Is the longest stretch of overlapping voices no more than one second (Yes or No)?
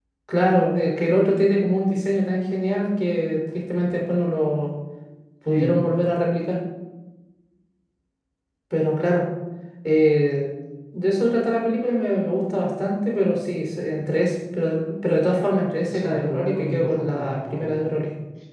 No